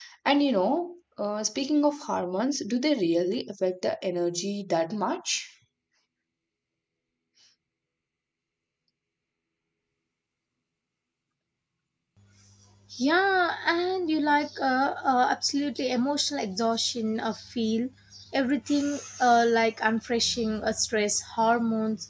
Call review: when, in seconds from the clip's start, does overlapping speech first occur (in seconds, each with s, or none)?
none